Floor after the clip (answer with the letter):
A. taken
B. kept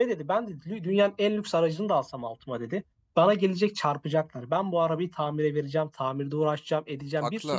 B